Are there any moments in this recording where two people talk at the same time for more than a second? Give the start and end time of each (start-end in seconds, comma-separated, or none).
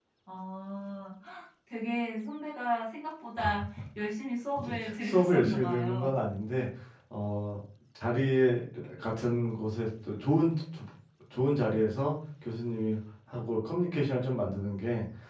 4.6-6.2